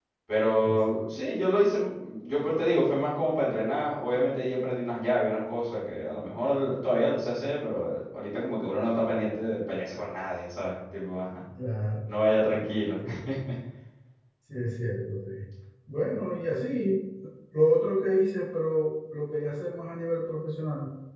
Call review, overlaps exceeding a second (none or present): none